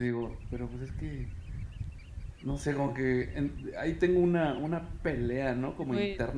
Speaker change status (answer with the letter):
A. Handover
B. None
B